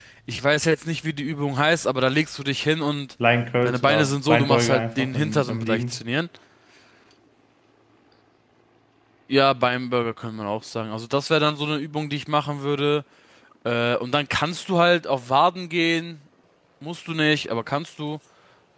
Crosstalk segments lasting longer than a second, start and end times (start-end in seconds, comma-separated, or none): 3.6-6.0